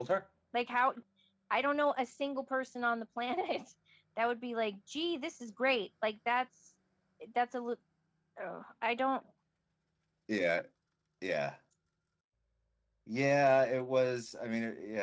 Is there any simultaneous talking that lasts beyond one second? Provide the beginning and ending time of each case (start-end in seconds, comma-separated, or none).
none